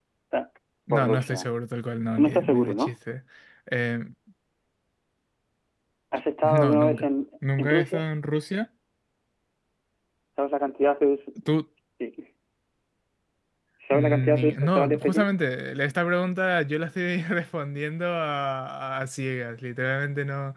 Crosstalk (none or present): present